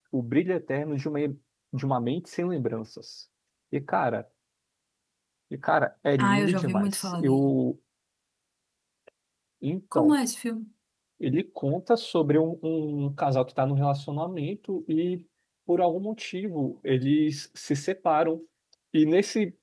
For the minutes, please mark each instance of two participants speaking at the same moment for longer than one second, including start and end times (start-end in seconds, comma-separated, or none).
6.2-7.5